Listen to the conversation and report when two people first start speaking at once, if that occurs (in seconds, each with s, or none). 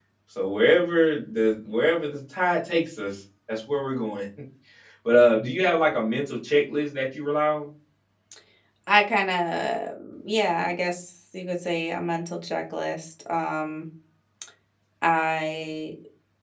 none